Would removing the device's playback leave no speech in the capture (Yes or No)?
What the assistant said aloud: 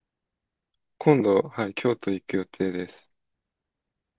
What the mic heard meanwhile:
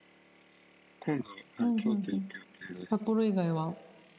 No